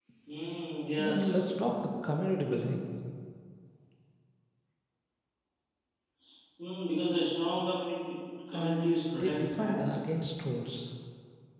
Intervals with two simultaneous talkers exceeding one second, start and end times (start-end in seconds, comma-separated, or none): 8.5-9.9